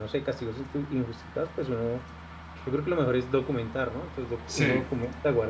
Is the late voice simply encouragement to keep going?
Yes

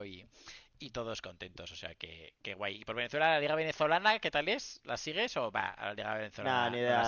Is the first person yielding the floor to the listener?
Yes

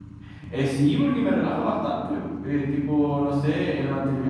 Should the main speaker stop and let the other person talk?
No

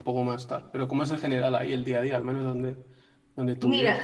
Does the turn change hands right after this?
Yes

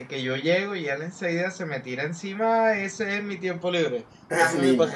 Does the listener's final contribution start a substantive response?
Yes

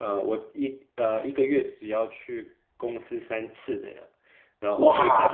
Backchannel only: Yes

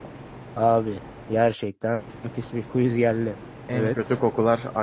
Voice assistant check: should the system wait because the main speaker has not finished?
No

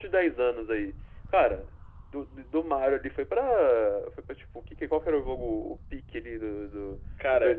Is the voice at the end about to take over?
No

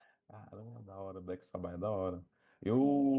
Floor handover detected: No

